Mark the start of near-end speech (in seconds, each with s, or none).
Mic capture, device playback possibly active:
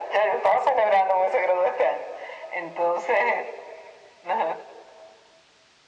none